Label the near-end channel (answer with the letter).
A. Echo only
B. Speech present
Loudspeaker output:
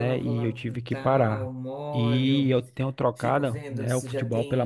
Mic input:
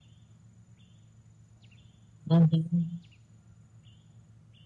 B